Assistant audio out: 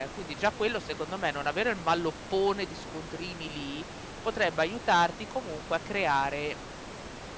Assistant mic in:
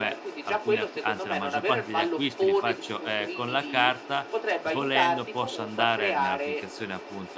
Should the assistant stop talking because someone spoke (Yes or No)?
Yes